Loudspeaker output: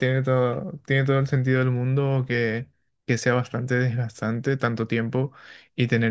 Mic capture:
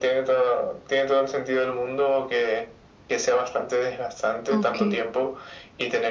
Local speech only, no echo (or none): ok.